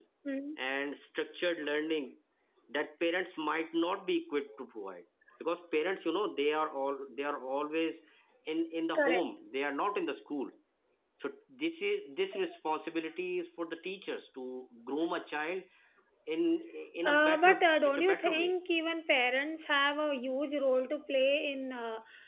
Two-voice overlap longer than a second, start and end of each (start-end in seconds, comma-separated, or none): 17.0-18.5